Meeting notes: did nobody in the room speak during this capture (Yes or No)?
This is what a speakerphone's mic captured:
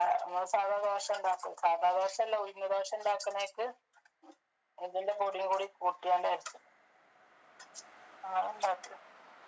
Yes